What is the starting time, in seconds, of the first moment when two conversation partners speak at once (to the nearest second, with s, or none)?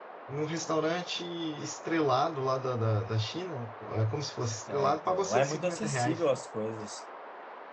5 s